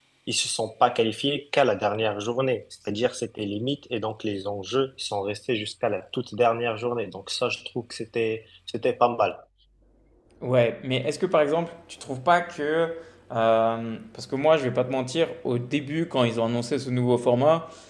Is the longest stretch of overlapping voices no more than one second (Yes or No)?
Yes